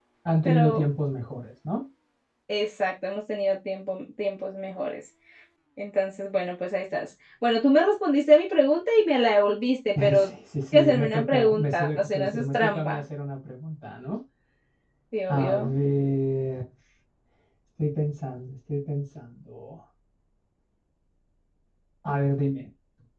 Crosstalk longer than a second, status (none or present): present